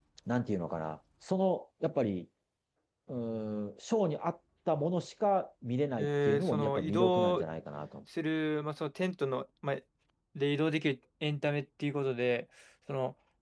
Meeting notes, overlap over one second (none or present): present